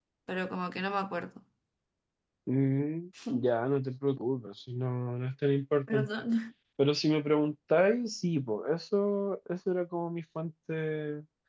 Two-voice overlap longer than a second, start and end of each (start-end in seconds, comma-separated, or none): none